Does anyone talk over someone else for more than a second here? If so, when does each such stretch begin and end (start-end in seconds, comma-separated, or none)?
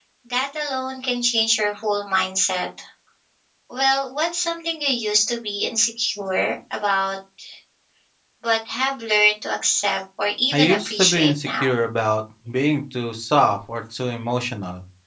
10.5-11.8